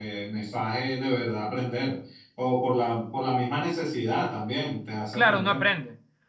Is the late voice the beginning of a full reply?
Yes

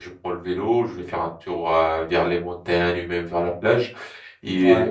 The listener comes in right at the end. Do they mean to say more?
No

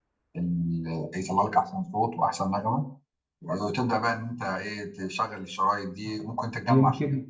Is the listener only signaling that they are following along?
No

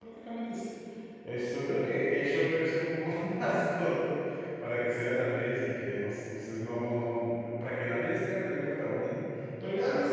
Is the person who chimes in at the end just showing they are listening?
Yes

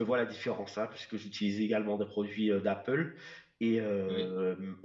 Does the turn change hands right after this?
No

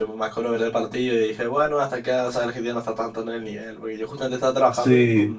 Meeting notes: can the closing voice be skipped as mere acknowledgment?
Yes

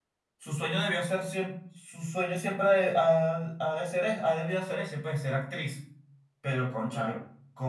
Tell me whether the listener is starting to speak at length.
No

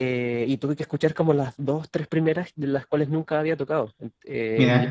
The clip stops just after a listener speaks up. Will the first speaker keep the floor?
Yes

